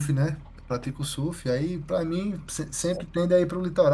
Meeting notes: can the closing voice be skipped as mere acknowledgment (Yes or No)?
Yes